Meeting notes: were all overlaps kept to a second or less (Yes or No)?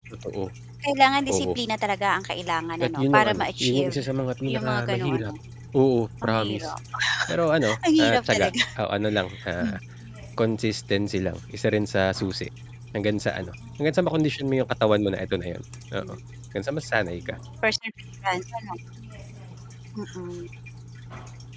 No